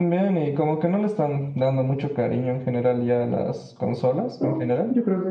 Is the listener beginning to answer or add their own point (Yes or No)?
Yes